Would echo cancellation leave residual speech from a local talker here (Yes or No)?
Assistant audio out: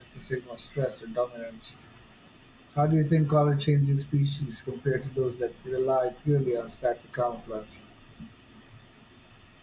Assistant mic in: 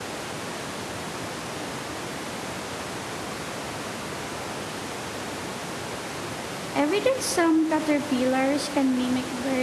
Yes